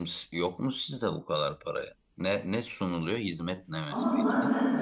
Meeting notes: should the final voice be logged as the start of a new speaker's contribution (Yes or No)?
Yes